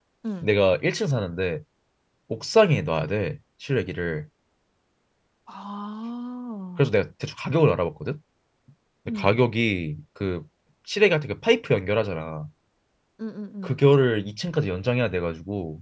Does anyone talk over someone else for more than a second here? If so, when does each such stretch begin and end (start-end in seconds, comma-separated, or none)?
none